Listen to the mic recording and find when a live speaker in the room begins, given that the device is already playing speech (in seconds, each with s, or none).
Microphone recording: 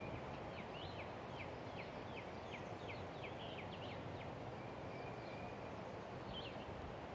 none